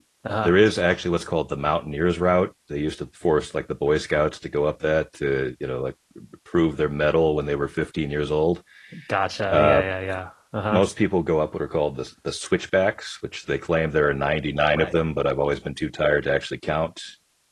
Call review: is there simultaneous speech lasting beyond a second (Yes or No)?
No